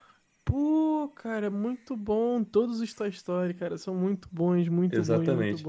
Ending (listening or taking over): taking over